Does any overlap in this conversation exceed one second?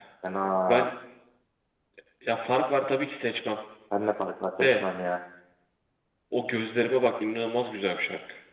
No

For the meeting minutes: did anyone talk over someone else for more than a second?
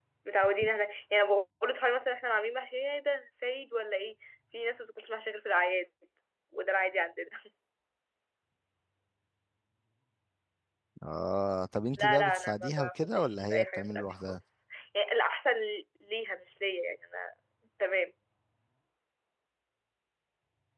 Yes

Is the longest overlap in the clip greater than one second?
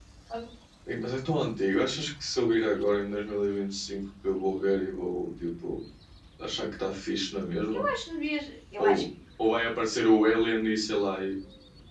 No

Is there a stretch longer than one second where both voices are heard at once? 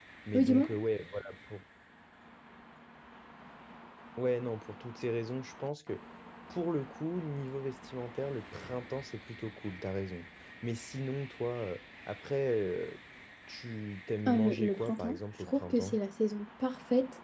Yes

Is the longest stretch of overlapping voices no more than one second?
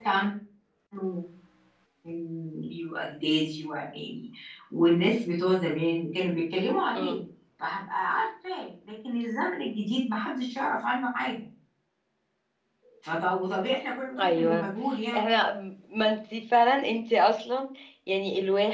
Yes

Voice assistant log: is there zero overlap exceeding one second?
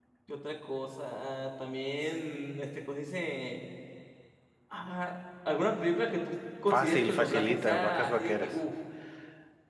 No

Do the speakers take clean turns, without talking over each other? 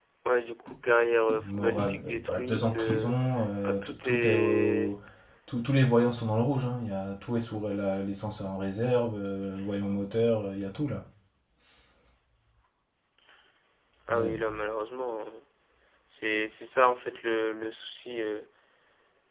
No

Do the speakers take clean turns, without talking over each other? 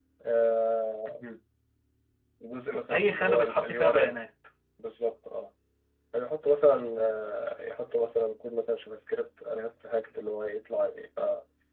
No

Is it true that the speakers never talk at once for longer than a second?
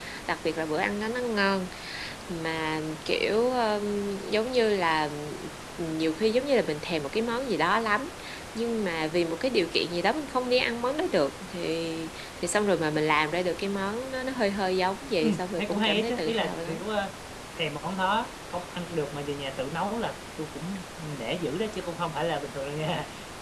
No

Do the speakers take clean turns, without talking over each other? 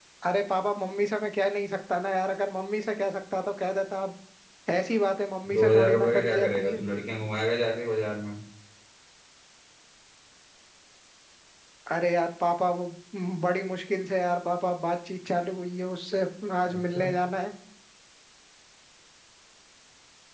No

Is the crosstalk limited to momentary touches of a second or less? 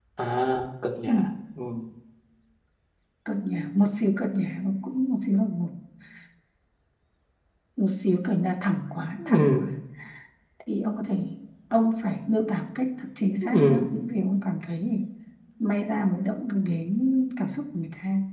Yes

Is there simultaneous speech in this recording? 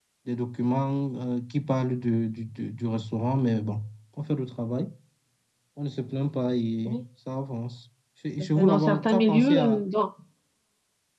Yes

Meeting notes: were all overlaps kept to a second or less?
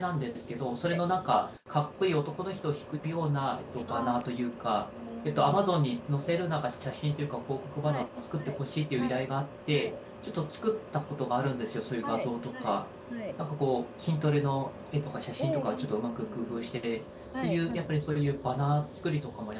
No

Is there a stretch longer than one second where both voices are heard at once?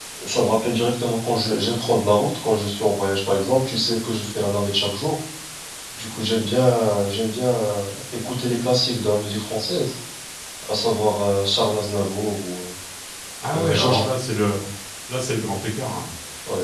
No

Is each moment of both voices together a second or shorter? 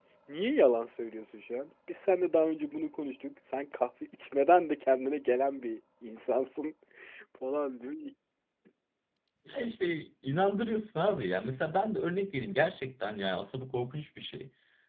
Yes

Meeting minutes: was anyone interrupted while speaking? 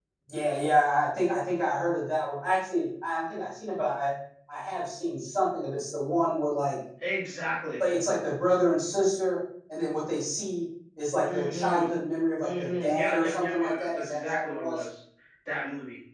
Yes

